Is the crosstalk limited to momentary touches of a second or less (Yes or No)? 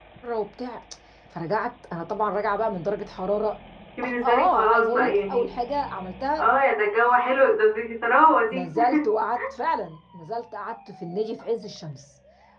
No